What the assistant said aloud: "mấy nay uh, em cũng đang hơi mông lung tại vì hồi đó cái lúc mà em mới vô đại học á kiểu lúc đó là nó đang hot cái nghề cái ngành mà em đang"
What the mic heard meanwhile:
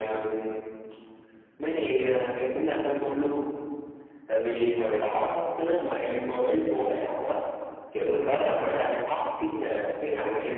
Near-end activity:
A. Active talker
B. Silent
B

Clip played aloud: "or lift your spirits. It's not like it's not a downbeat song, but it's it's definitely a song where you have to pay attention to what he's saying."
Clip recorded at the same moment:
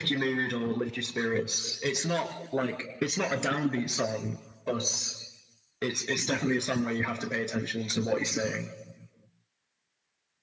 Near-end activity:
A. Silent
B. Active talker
A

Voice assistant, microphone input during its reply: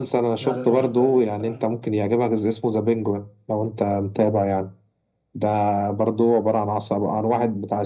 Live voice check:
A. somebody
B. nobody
A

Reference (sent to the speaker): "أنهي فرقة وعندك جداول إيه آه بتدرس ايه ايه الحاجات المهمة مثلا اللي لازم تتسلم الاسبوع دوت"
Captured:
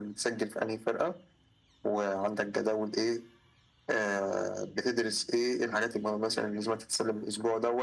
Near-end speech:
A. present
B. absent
B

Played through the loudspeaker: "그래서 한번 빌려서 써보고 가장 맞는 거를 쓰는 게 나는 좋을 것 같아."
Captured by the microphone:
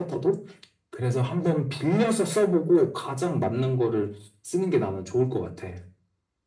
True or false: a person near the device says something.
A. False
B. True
A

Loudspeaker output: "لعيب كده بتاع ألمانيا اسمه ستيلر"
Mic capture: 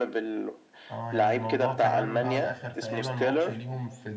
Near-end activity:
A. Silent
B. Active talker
B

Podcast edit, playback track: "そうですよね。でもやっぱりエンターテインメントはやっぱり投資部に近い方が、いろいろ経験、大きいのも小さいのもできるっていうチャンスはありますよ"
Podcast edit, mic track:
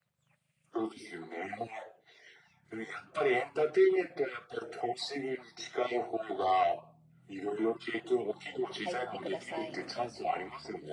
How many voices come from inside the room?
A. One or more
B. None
A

